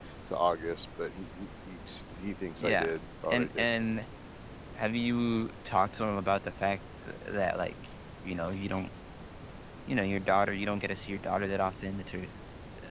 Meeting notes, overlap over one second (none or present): none